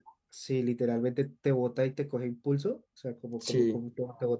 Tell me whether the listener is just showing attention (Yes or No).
Yes